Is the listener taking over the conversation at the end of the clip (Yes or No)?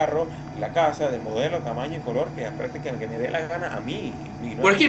Yes